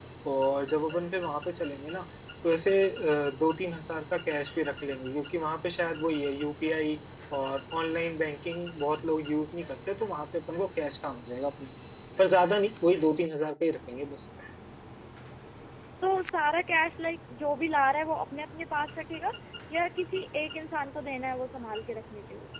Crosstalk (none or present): none